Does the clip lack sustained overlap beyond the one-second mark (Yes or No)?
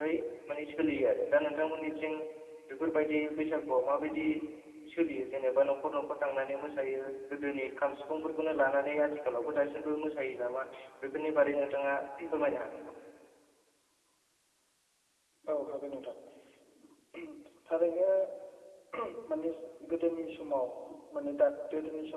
Yes